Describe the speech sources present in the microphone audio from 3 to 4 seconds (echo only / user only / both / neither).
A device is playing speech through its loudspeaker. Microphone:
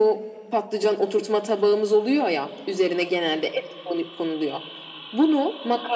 echo only